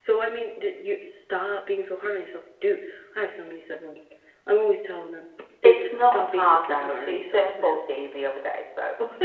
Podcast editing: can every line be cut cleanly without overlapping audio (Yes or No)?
No